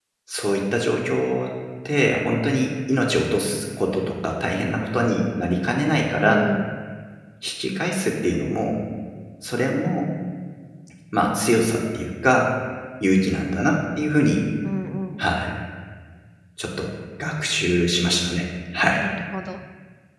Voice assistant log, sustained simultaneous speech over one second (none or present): none